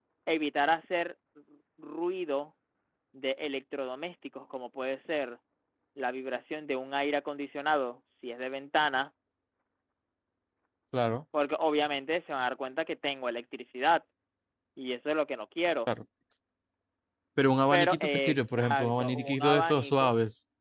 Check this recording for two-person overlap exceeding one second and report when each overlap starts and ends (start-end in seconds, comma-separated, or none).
17.7-20.1